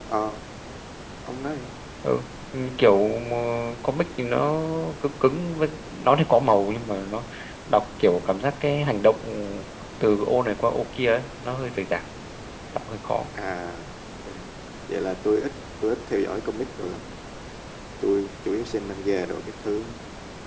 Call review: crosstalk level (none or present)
none